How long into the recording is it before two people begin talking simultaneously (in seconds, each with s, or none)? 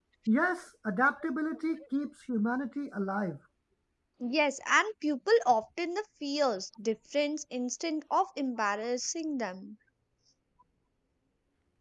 none